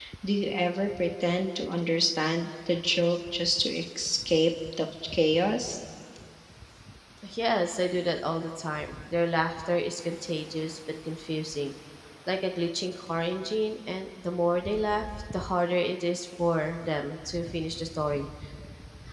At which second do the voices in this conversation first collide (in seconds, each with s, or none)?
none